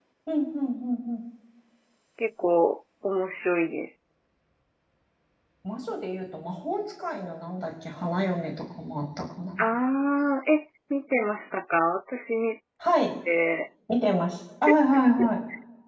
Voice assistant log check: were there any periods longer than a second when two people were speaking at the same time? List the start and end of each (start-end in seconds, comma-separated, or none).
none